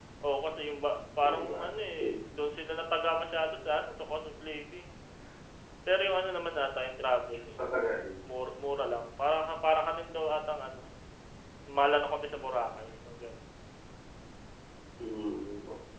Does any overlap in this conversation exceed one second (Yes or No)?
No